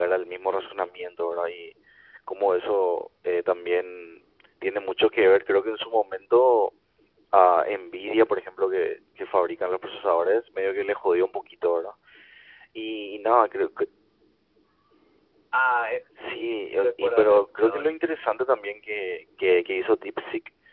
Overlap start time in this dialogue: 16 s

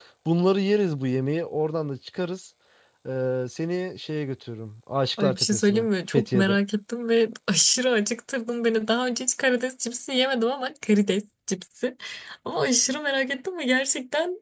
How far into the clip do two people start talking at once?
5 s

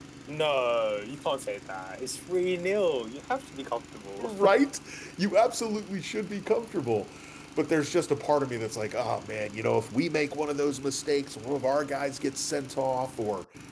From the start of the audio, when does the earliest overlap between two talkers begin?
none

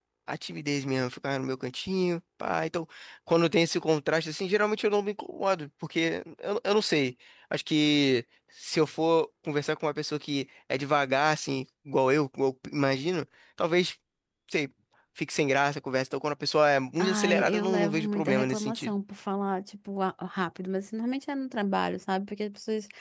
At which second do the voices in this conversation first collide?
17 s

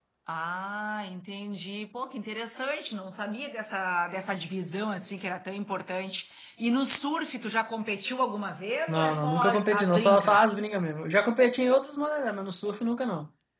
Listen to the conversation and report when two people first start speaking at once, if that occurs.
9 s

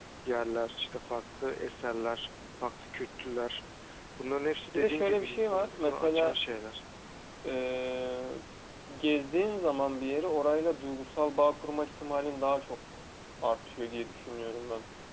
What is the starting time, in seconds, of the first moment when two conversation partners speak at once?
5 s

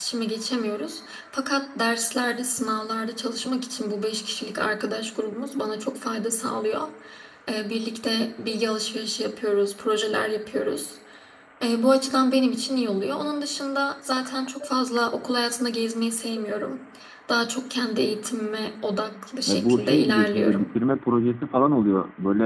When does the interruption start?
19 s

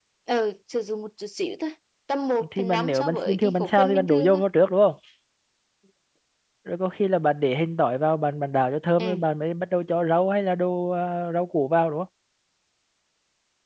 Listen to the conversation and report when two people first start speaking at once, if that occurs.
2 s

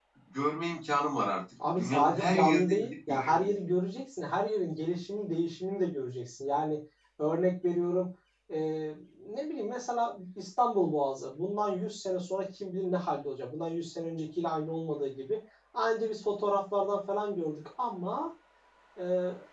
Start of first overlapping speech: 2 s

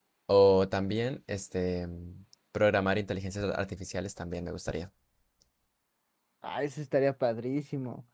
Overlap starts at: none

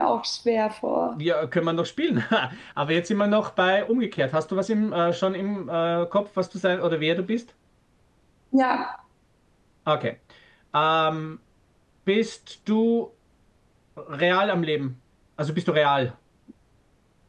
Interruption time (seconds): none

